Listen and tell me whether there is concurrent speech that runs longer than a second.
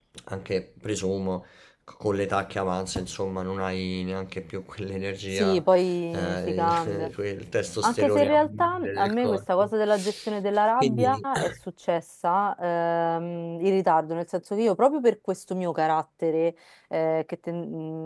Yes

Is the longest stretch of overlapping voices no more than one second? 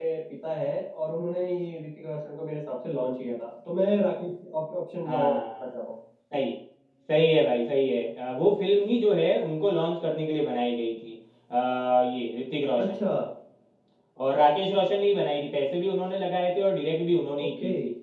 Yes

